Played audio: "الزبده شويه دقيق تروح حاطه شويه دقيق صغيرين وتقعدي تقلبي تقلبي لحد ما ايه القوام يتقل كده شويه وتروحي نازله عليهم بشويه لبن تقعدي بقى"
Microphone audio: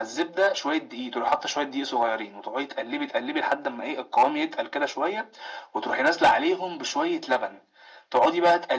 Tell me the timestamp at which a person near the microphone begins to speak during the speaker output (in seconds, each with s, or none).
none